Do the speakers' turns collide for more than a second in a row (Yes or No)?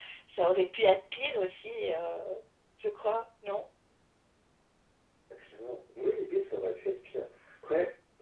No